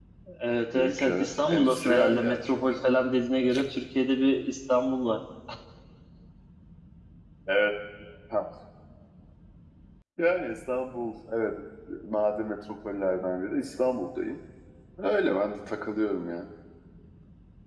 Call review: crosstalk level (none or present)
present